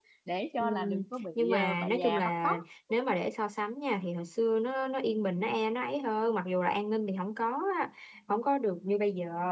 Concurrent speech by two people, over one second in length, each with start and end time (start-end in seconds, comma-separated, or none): 1.4-2.6